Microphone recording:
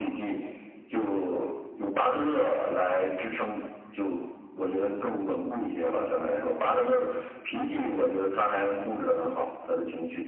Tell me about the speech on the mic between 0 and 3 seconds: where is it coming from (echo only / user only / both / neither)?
echo only